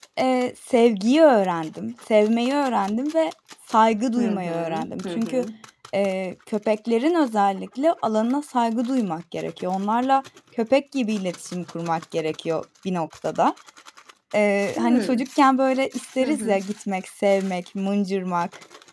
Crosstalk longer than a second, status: present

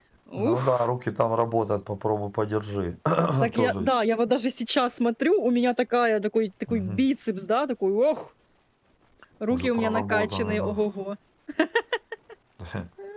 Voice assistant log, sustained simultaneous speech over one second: present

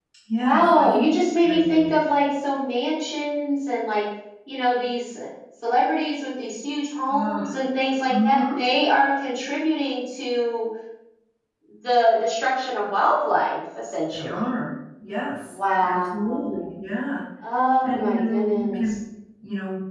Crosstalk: present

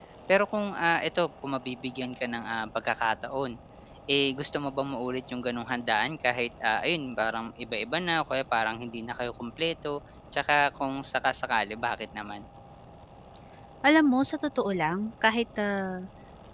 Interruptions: none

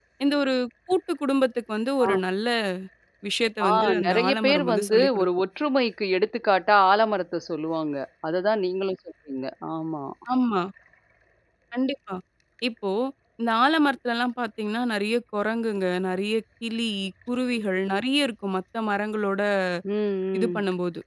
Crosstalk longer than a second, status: present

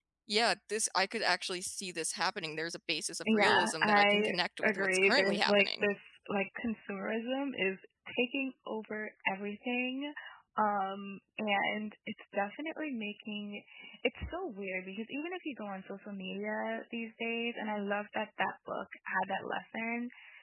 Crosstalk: present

